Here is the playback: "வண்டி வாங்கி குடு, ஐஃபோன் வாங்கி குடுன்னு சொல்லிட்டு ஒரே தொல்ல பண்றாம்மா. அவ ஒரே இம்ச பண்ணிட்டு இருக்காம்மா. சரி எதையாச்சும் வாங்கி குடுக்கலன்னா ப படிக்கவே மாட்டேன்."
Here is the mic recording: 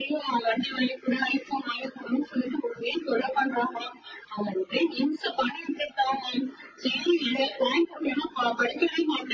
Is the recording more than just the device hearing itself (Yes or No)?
No